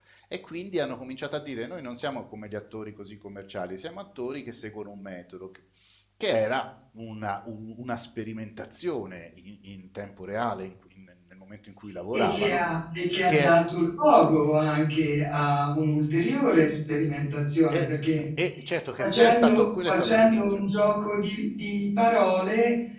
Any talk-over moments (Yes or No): Yes